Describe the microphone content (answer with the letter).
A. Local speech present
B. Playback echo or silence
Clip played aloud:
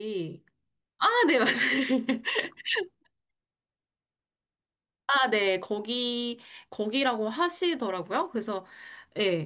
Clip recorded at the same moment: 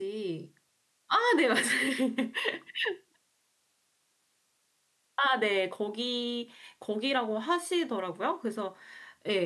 B